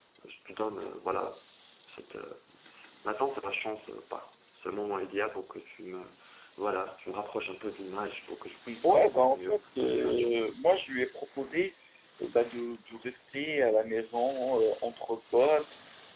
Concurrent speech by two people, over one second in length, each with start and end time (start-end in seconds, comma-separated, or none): 8.8-10.4